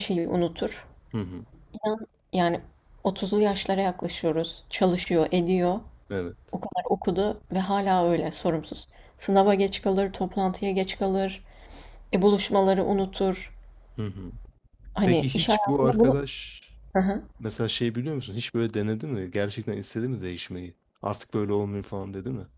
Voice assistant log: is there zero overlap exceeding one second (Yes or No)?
No